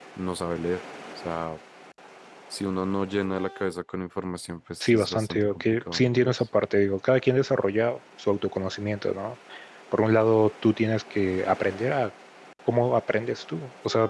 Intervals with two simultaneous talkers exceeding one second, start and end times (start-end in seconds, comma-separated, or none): 4.8-6.3